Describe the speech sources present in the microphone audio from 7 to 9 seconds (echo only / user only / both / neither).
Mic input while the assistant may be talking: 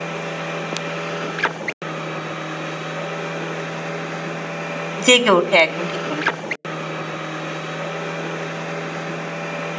neither